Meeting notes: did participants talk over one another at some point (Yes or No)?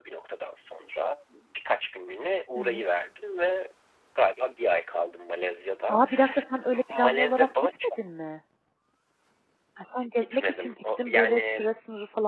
Yes